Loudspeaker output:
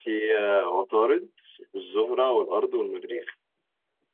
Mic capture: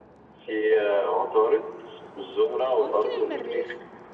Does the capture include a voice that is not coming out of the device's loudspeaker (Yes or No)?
Yes